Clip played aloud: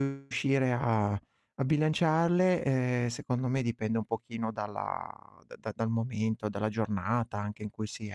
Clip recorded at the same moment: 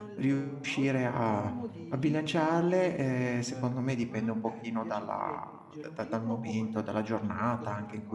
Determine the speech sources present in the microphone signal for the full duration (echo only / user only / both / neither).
both